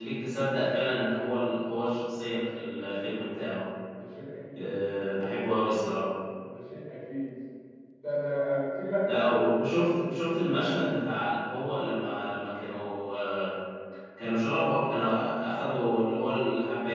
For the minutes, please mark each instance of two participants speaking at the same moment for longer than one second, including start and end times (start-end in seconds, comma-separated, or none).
none